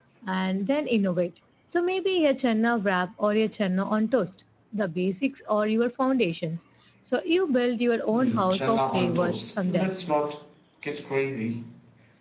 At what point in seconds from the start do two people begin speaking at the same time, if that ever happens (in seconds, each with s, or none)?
8.1 s